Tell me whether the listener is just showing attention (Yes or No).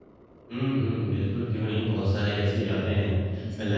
Yes